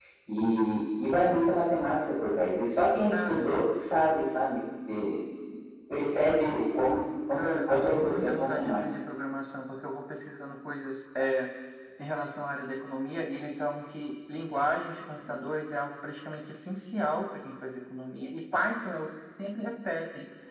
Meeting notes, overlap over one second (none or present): present